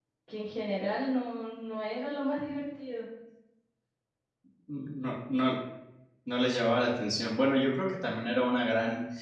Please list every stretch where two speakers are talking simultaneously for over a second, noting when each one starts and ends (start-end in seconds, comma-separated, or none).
none